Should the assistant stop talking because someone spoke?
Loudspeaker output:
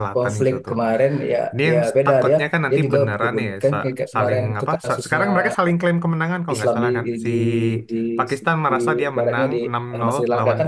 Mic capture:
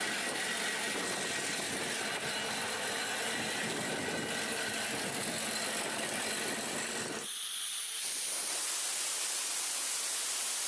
No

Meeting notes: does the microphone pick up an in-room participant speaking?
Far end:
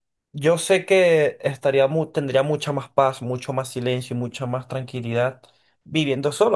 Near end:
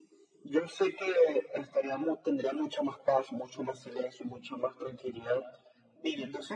No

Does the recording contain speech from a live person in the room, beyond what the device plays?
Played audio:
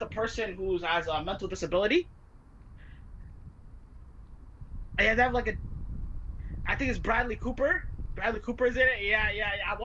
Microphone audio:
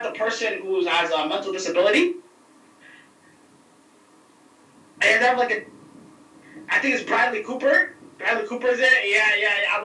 No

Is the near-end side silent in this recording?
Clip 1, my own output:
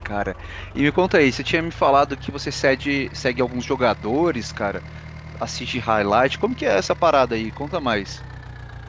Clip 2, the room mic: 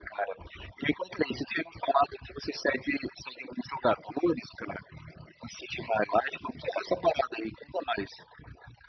Yes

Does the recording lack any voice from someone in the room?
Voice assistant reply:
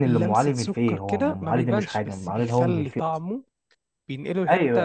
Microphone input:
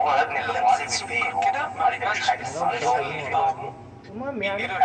No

